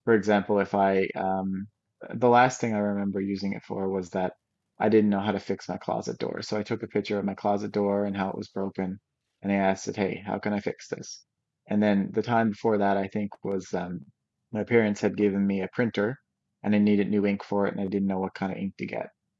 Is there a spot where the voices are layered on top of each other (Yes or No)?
No